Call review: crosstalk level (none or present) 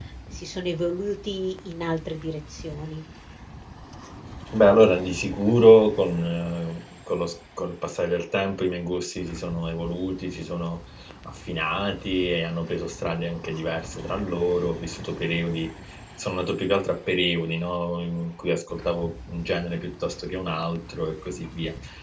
none